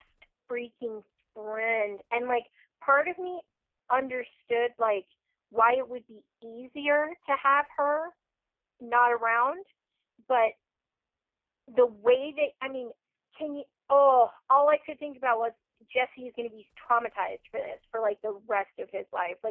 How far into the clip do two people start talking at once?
none

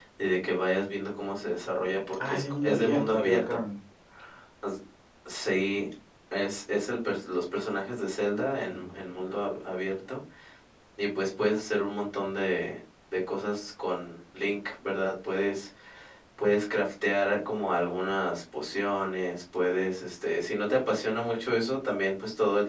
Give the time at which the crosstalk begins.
2.2 s

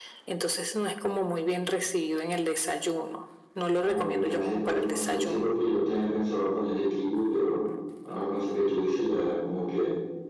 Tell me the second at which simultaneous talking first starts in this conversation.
3.8 s

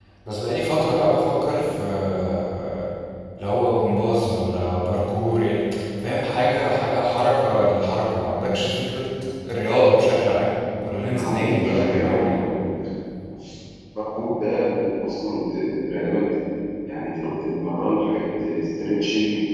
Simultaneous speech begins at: 11.0 s

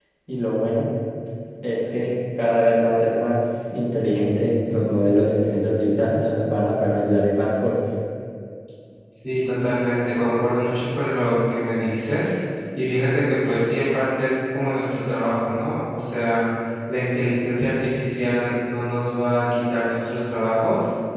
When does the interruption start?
none

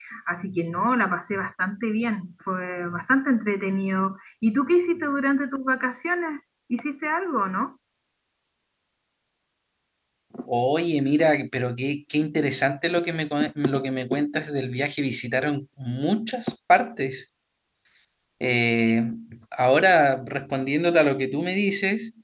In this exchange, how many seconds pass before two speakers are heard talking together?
none

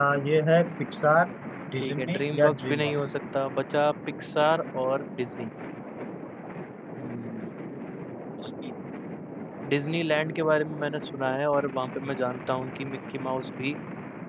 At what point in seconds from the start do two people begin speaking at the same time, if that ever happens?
1.8 s

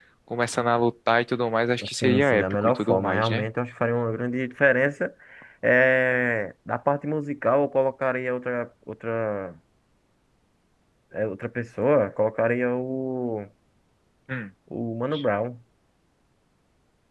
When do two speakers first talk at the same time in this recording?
1.8 s

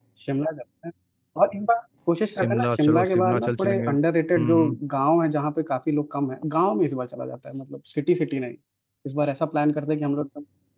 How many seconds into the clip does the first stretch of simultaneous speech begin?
2.3 s

